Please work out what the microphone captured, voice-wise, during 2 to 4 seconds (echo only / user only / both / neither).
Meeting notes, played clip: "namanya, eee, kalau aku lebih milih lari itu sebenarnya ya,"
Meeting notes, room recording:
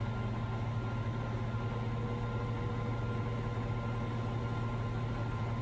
neither